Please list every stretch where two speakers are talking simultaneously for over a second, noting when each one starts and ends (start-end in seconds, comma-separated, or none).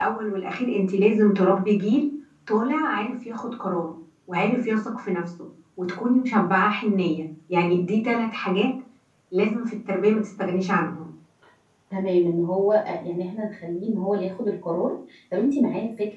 none